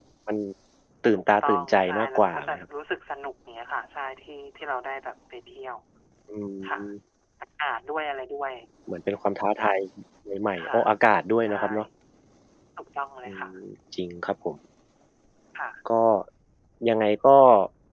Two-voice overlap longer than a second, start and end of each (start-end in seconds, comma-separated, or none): 1.1-2.6